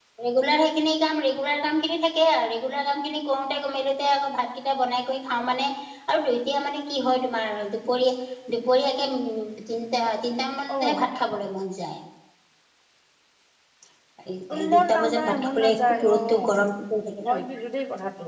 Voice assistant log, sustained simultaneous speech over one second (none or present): present